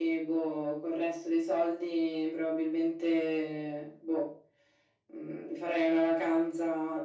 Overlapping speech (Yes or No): No